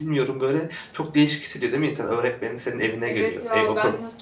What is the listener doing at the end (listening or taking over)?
taking over